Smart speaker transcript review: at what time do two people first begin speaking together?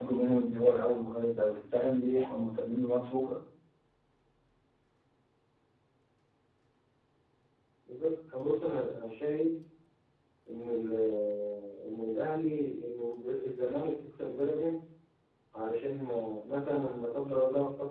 none

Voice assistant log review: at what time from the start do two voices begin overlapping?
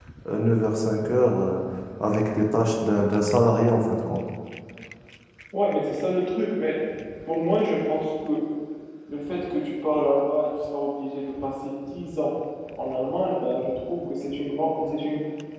none

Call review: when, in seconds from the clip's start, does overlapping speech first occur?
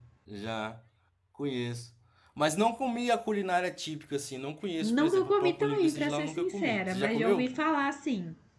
4.8 s

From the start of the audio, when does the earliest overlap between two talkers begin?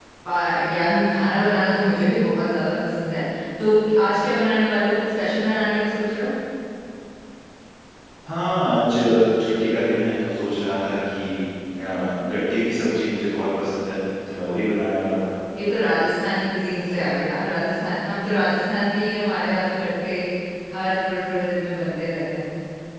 none

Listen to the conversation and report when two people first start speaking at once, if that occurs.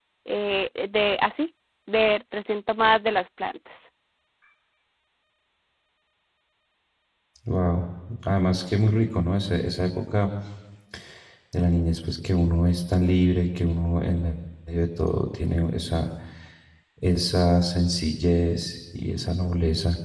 none

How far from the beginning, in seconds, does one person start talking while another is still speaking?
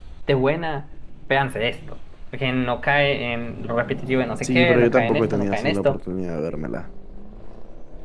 4.4 s

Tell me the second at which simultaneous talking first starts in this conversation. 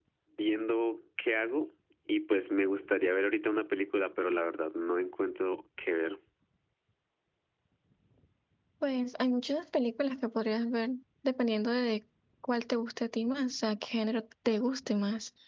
none

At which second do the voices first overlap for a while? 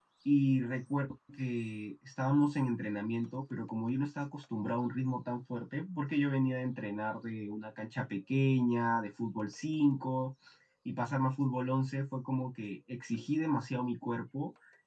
none

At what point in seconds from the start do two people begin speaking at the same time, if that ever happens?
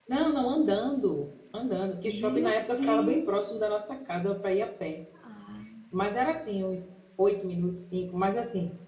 2.0 s

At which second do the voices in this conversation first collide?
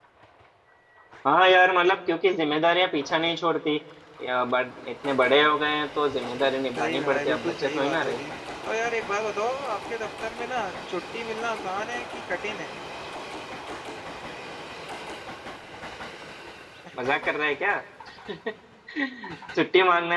6.8 s

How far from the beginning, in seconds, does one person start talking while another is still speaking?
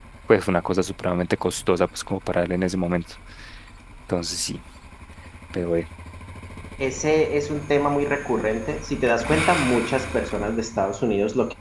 none

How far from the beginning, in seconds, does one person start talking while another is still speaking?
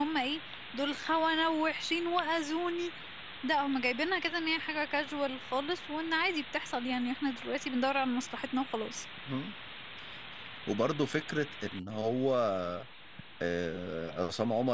none

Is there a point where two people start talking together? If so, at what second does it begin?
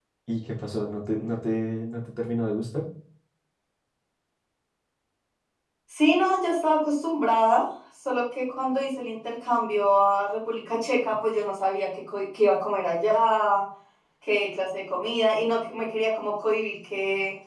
none

